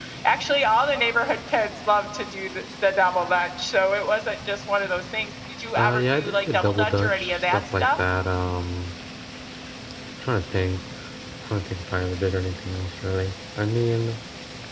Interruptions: present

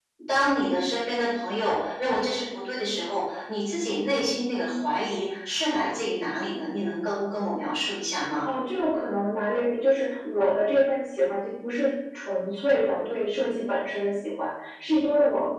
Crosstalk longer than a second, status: none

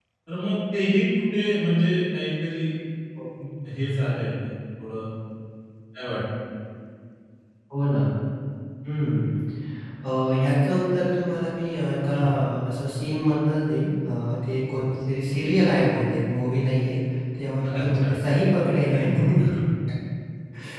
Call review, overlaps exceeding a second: none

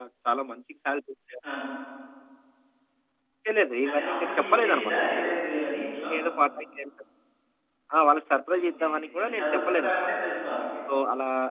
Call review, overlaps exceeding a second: present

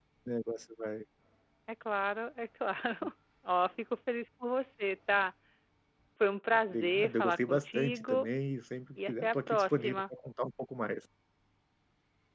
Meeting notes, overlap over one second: present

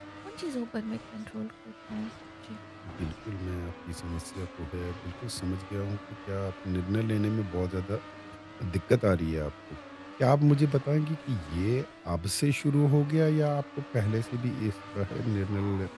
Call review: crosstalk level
none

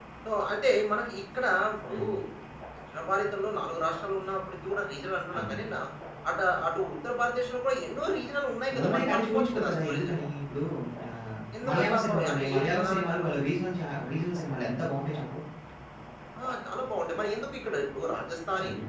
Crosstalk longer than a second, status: present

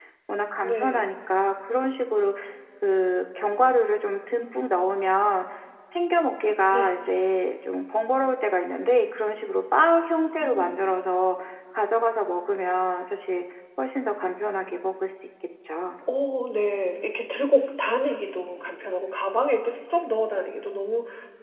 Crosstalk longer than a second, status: none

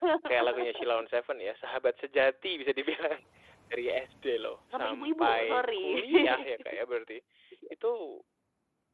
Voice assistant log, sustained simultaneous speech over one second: present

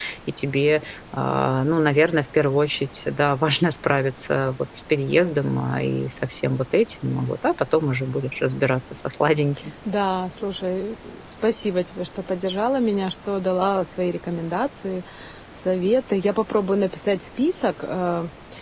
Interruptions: none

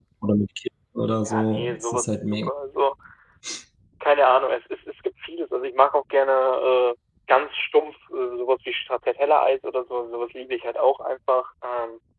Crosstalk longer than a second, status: present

